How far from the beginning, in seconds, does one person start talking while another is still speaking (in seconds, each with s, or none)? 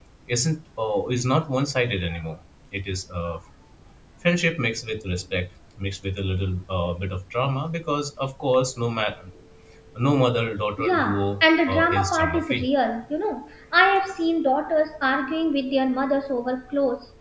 10.8 s